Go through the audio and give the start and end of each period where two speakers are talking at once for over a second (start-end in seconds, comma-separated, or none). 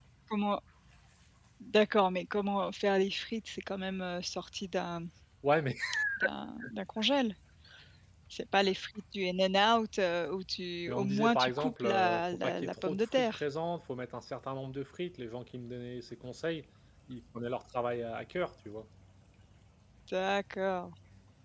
10.9-13.4